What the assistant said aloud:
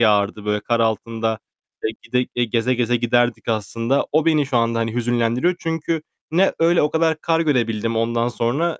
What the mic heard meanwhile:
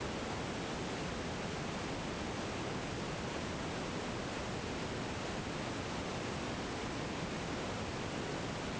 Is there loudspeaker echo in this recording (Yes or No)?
No